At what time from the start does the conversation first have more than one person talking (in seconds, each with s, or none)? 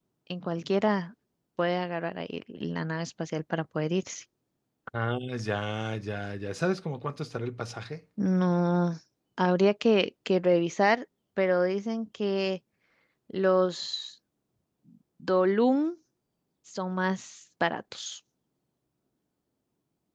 none